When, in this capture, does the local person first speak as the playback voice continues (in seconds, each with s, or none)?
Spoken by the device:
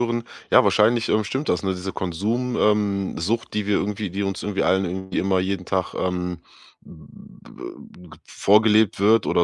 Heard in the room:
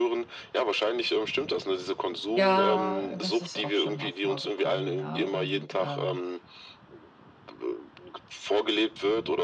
2.3 s